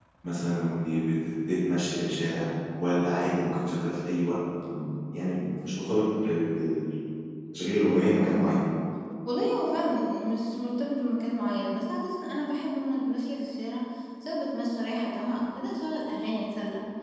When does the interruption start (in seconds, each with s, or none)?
none